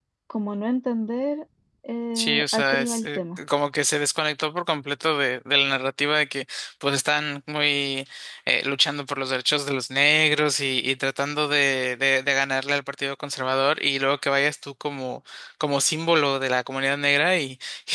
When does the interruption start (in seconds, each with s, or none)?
2.1 s